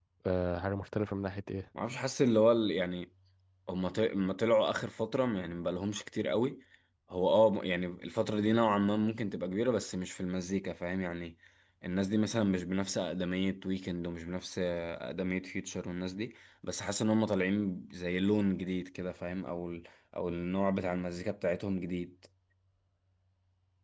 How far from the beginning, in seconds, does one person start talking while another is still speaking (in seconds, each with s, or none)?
none